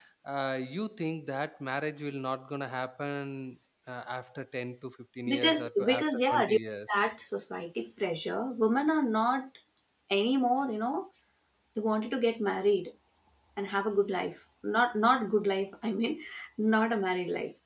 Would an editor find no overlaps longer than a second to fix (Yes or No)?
No